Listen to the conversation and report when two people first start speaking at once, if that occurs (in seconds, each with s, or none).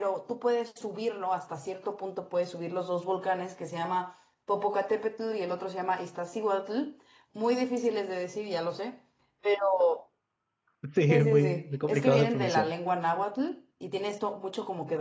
11.1 s